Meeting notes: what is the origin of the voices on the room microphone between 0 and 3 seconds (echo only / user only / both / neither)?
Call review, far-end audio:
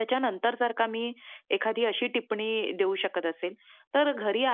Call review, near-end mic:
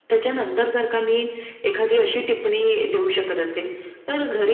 echo only